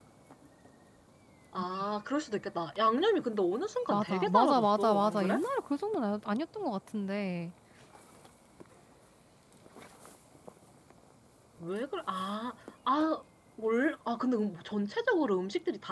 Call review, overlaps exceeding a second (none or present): present